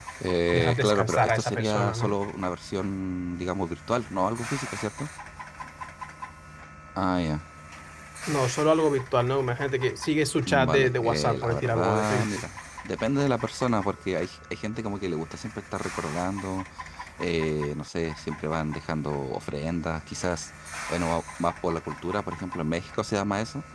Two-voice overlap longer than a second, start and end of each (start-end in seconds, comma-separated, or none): 0.5-2.2, 10.5-12.5